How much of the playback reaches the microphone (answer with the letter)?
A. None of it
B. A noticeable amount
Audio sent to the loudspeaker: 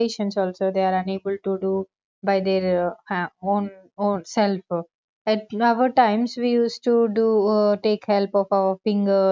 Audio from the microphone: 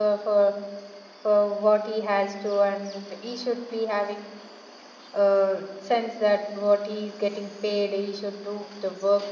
A